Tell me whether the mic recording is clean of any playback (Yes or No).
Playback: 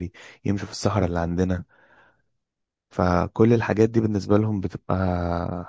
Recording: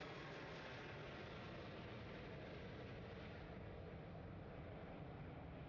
Yes